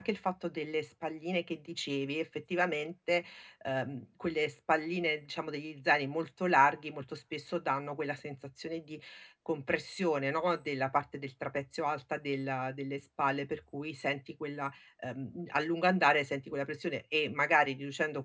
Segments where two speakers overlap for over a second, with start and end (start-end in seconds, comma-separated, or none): none